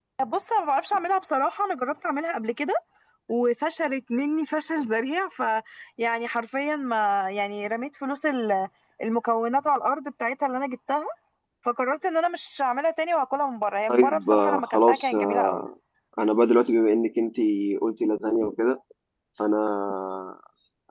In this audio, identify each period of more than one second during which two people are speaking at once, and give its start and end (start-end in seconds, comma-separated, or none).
13.9-15.7